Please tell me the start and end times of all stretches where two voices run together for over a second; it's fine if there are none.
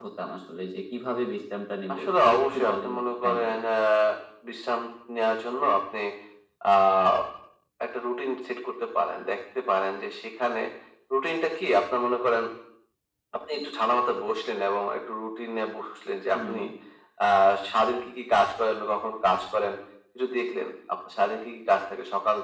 1.9-3.6

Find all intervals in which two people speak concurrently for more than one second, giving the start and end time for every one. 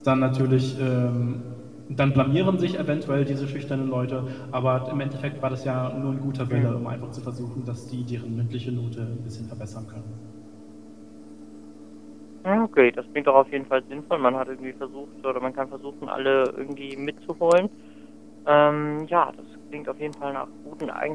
none

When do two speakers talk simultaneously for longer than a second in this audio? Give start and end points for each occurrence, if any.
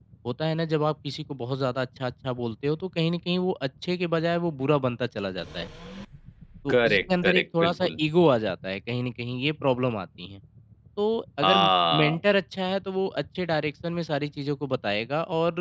6.7-8.0

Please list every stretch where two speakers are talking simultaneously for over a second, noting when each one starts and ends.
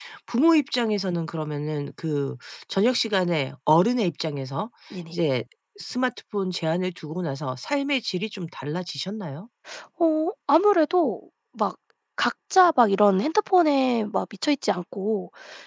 none

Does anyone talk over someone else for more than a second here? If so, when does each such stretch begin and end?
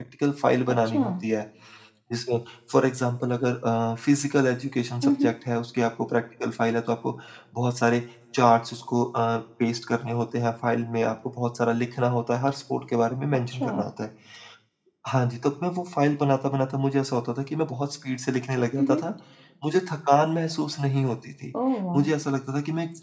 none

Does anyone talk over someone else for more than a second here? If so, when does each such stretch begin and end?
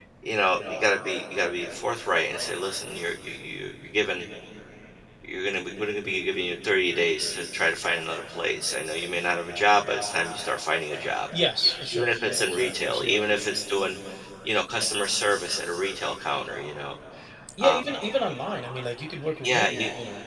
11.9-13.2

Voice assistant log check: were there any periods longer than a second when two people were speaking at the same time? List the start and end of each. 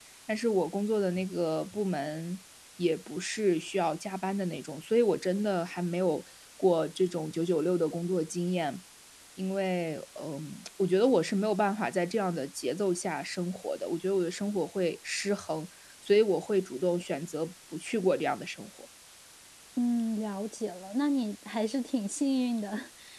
none

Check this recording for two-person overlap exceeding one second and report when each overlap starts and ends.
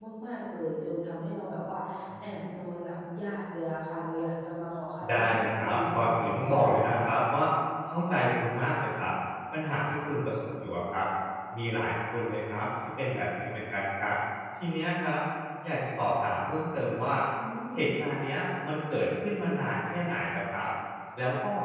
5.1-6.7

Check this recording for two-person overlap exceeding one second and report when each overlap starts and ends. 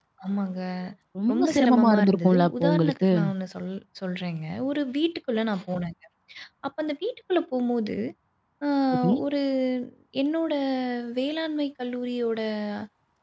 1.3-3.1

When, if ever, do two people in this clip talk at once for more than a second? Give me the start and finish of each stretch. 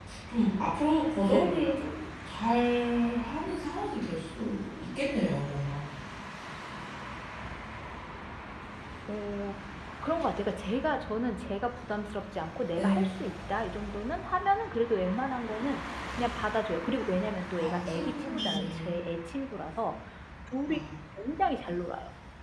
17.6-19.0

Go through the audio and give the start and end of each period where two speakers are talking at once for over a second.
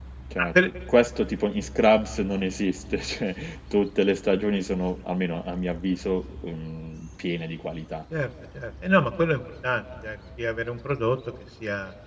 none

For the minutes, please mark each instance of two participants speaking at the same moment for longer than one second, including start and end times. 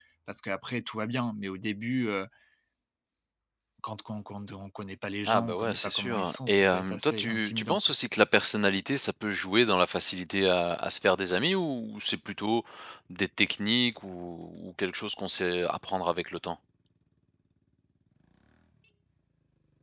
5.3-7.8

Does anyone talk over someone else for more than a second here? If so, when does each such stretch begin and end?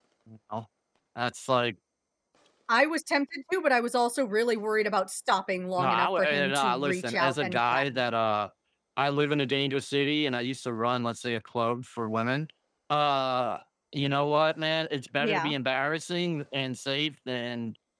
5.8-7.8

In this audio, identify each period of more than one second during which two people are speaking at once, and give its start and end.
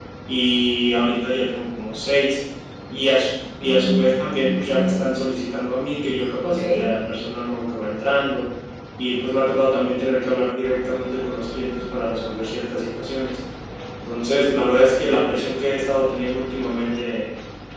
3.6-5.0

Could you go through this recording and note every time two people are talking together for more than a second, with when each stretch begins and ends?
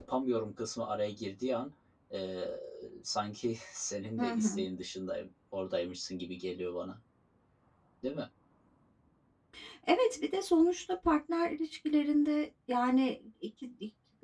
none

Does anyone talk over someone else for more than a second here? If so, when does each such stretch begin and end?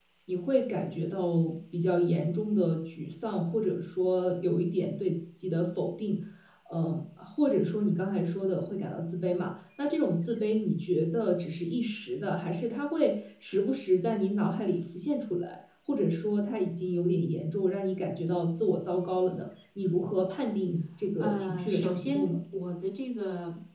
21.2-22.4

